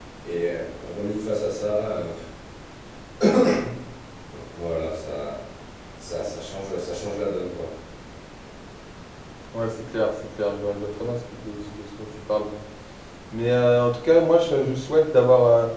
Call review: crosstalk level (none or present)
none